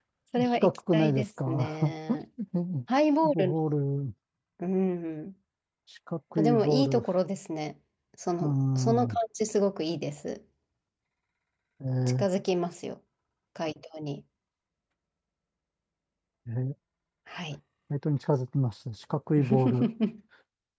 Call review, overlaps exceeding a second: present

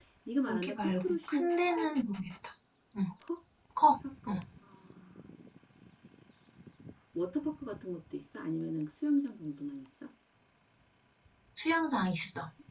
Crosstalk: present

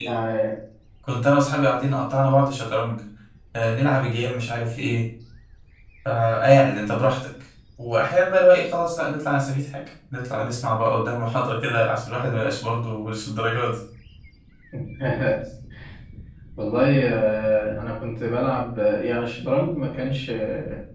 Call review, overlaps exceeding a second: none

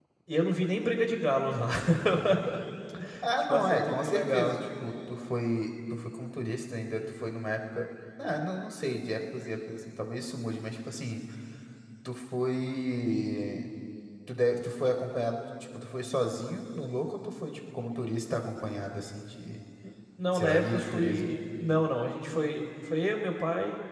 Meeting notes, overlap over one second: present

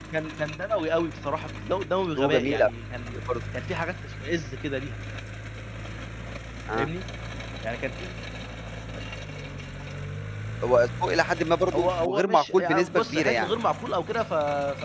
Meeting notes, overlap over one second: present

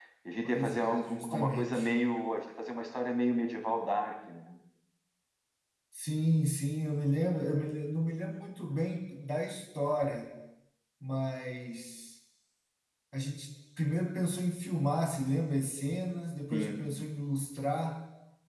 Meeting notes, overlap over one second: present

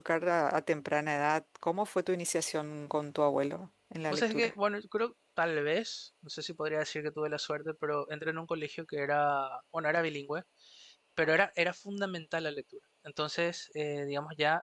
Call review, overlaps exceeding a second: none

